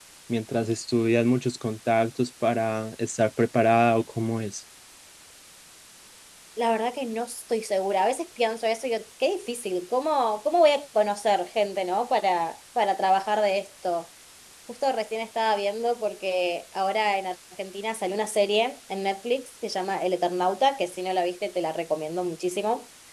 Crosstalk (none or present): none